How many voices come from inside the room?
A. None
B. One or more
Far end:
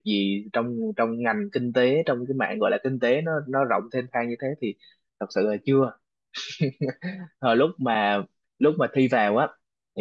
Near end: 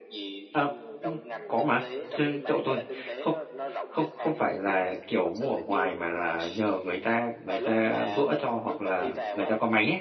B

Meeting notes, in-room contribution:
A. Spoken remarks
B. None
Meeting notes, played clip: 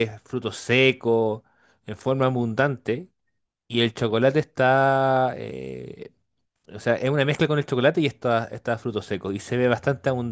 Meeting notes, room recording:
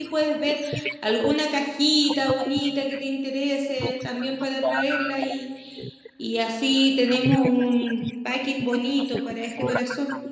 A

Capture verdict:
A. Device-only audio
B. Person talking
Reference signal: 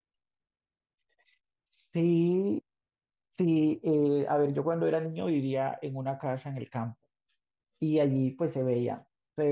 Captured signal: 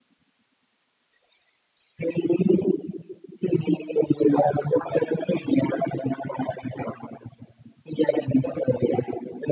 A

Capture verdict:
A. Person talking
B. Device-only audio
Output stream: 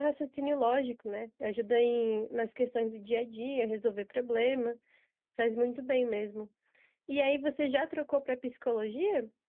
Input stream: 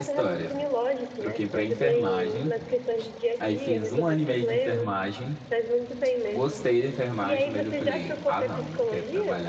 A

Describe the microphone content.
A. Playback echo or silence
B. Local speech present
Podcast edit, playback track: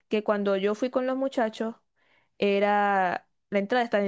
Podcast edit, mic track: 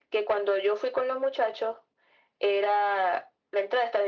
A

